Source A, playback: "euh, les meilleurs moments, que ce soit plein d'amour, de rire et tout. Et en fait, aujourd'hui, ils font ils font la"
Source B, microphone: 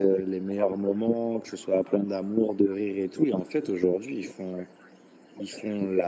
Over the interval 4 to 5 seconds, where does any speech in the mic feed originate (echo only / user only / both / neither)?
echo only